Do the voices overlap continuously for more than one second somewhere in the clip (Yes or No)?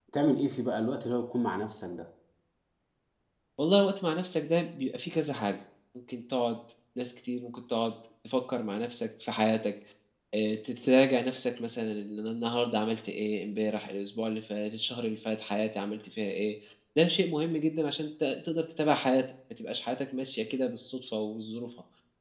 No